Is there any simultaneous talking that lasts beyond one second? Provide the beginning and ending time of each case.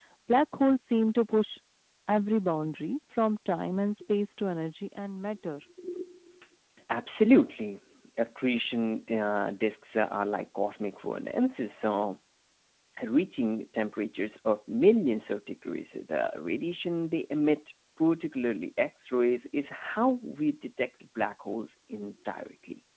none

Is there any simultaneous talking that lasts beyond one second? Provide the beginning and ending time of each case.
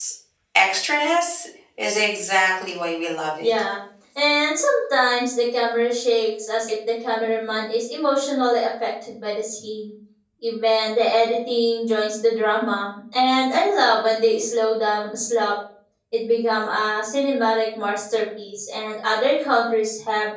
none

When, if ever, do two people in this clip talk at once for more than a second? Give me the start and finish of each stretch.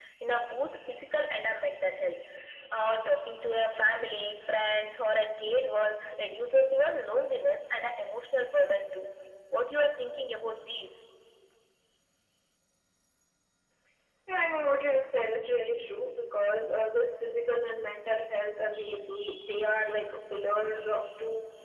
none

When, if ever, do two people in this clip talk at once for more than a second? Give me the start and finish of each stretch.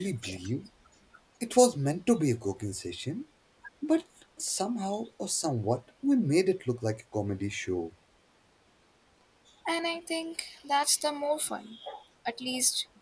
none

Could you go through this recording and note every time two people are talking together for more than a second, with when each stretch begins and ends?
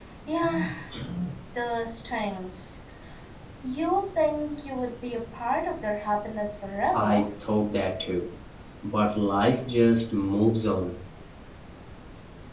none

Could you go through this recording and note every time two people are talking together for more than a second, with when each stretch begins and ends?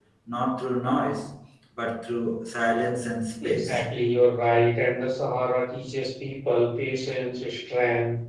none

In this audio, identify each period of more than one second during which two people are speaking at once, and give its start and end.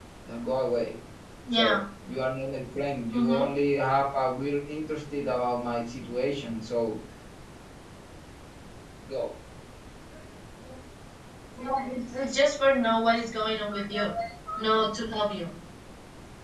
none

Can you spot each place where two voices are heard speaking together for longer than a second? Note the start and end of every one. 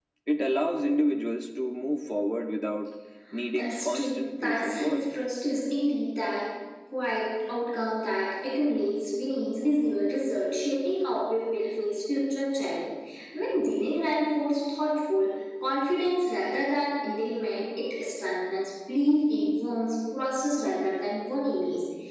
3.5-5.0

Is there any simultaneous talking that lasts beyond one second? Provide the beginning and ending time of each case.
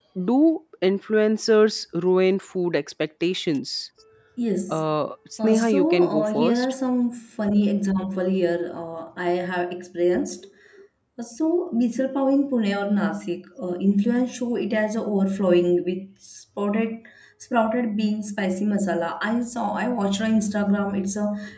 5.4-6.7

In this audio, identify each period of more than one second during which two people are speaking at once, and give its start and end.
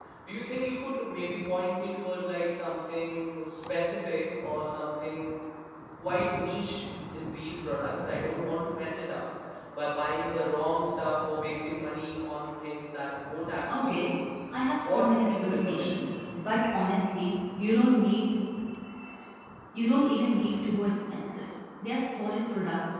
14.8-16.3

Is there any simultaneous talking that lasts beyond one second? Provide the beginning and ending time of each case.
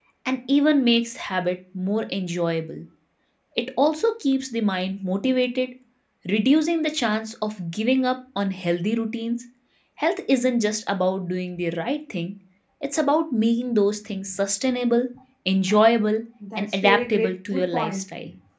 16.6-18.0

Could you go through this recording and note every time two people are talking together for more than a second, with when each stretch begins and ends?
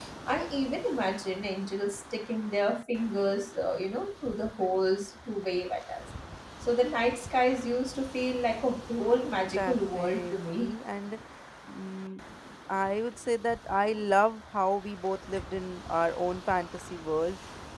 9.6-10.8

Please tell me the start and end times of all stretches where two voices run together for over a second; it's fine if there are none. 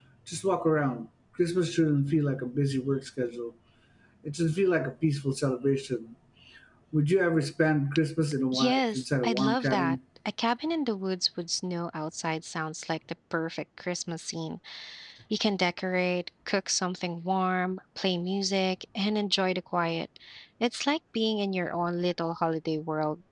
8.5-10.0

